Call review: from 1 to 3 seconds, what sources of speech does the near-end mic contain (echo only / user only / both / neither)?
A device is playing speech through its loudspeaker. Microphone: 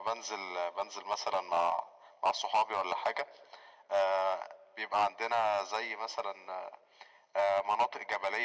echo only